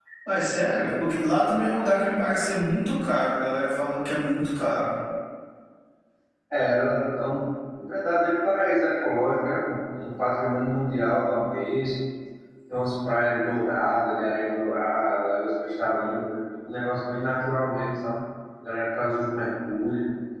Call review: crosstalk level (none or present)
none